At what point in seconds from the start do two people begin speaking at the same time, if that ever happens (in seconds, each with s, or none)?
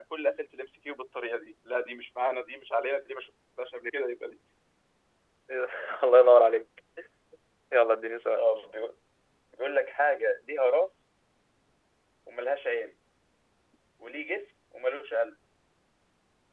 none